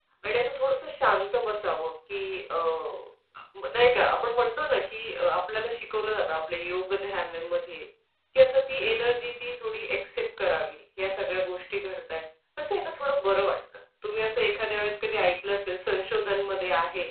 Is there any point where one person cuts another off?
No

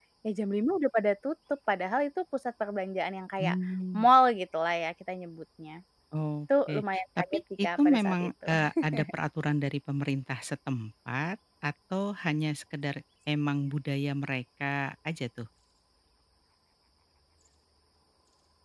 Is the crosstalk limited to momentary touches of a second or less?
No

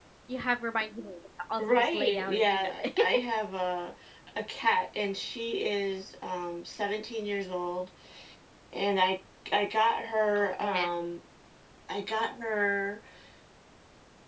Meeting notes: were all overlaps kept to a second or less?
No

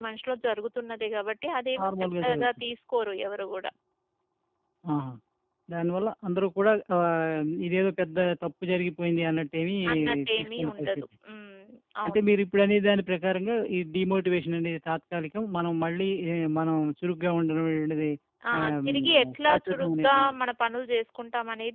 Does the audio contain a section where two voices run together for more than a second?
Yes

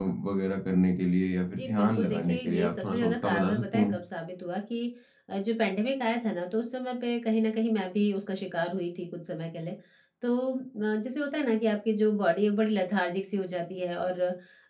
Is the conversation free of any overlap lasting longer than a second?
No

